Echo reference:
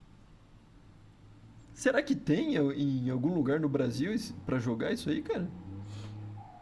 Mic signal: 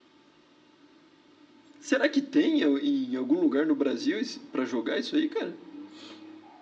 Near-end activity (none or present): none